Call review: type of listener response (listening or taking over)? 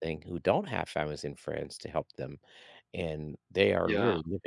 listening